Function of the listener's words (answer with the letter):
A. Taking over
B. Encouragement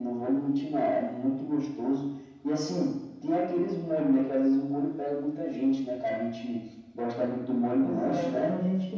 A